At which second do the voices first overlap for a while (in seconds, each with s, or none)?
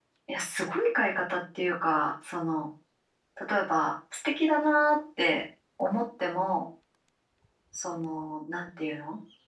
none